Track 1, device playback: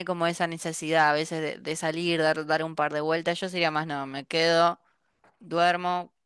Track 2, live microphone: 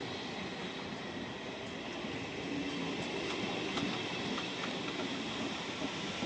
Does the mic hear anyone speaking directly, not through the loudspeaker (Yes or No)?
No